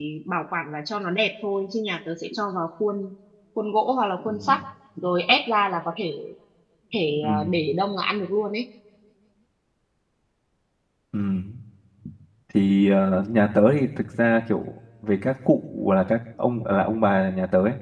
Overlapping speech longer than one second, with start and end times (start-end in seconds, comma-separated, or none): none